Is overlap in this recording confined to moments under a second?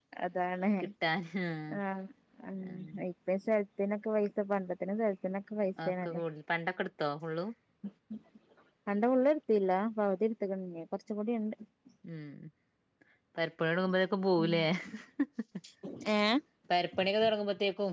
Yes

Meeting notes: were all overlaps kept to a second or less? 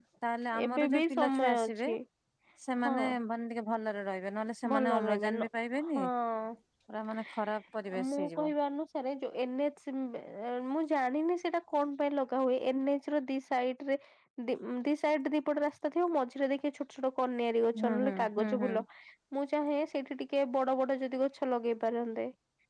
No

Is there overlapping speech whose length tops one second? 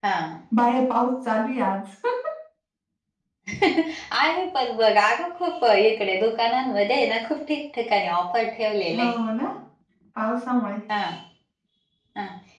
No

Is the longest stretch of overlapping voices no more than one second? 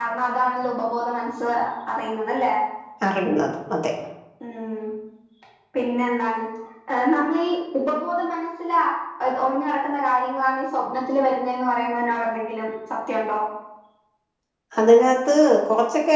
Yes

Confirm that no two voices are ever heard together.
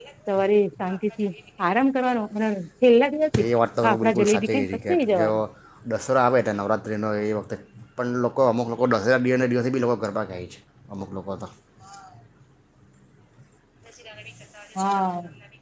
No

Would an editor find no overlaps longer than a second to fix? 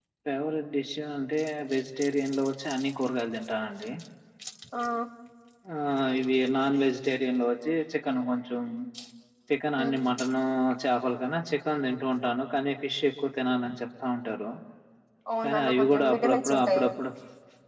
No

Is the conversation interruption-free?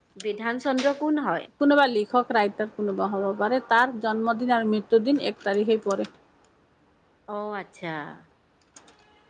Yes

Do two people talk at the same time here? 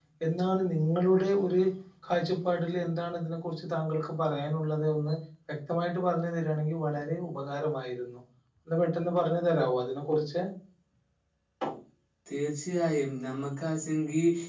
No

